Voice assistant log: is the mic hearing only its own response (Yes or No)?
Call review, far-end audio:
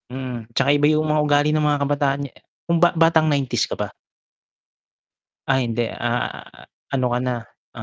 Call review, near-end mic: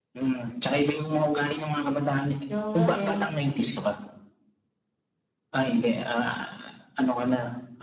No